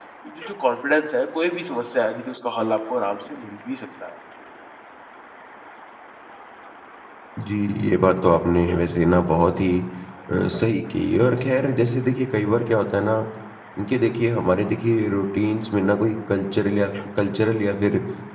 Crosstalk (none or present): none